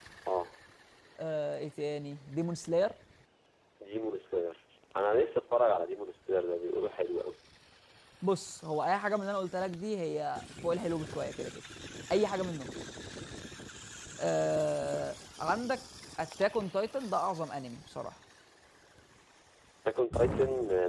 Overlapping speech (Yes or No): No